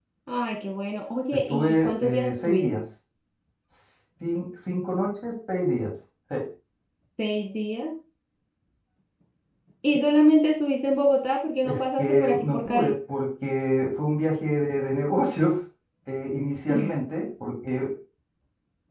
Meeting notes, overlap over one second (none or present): present